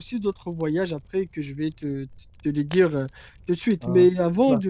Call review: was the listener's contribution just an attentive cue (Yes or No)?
Yes